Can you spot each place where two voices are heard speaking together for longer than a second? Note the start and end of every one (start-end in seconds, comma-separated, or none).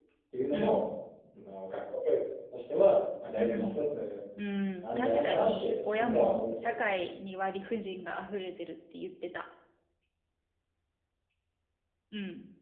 4.8-6.9